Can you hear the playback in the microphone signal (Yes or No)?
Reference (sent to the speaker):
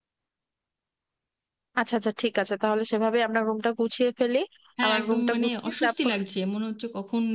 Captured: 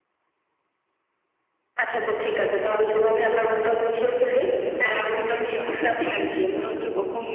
Yes